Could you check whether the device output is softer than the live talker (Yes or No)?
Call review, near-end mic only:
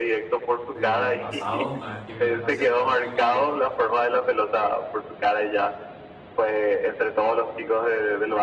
No